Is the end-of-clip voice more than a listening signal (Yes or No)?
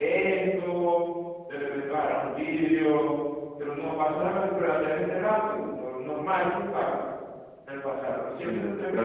Yes